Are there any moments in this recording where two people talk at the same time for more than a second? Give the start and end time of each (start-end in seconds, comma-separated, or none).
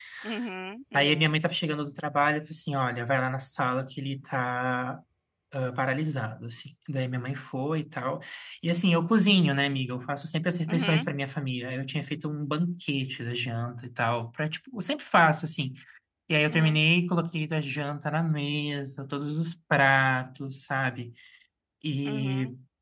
none